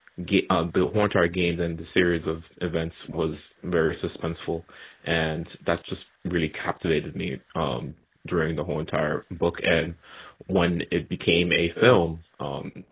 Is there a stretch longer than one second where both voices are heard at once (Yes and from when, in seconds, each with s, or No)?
No